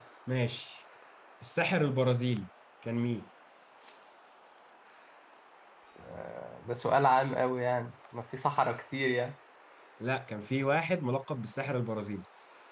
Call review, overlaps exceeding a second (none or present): none